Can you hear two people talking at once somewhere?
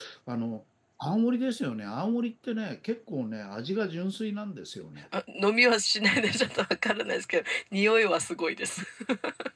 No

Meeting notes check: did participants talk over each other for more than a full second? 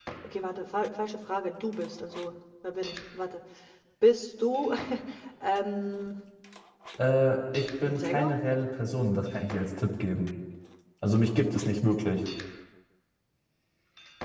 No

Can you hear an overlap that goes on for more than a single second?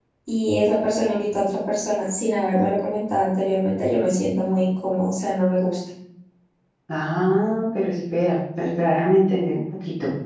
No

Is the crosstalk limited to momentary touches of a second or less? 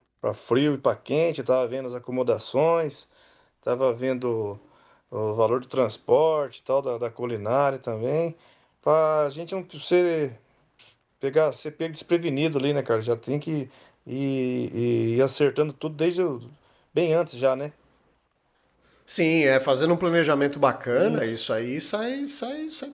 Yes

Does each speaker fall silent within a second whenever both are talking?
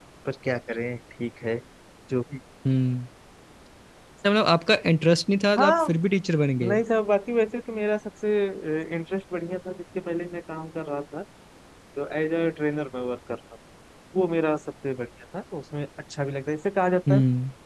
Yes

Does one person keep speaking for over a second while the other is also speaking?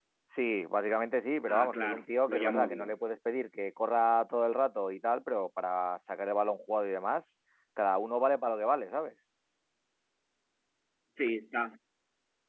Yes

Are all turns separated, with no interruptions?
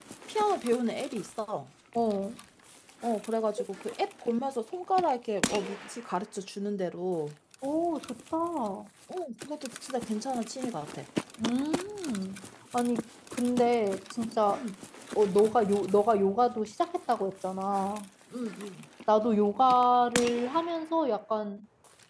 Yes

